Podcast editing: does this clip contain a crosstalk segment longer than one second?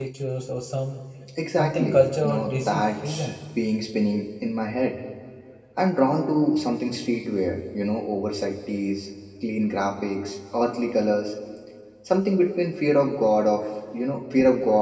Yes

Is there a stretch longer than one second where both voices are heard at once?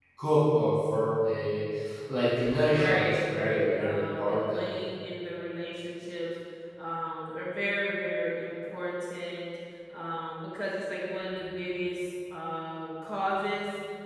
Yes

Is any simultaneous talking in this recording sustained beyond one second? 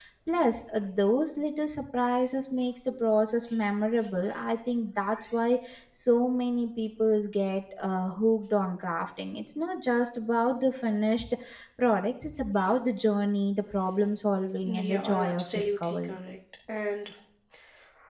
Yes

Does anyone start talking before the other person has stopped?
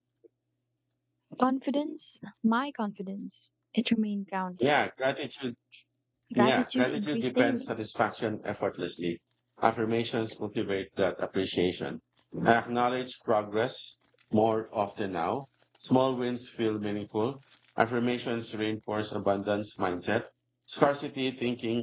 Yes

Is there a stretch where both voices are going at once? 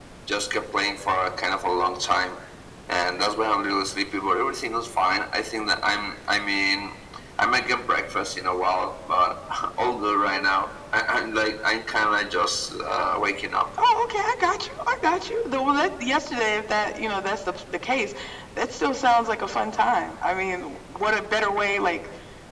No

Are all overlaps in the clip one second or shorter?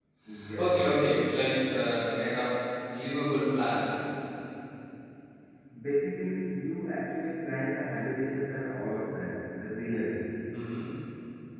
Yes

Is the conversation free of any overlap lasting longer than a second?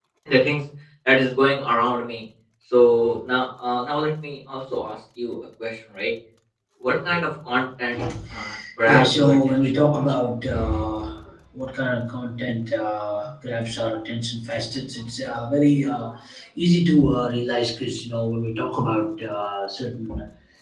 No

